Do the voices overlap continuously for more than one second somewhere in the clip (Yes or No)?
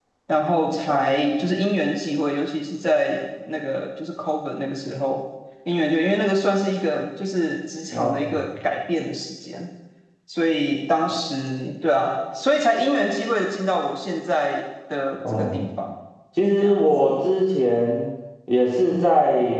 No